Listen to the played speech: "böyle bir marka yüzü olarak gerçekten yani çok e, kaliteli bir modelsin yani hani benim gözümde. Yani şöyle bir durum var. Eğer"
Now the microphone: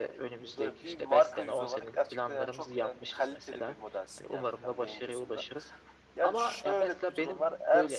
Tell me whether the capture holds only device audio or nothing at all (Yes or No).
No